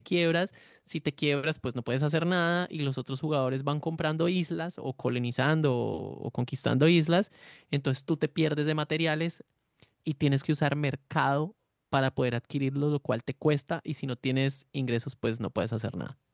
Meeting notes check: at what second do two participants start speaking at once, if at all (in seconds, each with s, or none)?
none